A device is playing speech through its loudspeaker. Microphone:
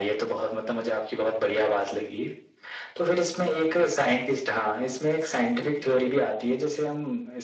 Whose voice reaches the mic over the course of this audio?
both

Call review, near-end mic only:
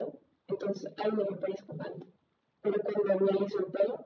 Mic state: echo only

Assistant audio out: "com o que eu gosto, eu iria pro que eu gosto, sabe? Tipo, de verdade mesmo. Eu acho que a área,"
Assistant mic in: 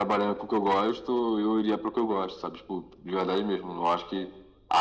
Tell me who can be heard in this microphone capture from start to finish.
echo only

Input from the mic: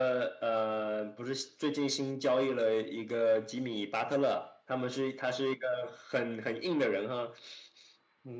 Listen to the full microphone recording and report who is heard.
echo only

